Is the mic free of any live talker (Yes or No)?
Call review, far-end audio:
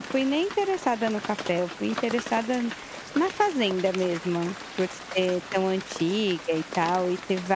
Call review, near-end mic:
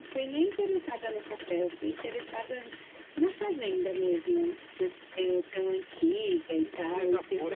No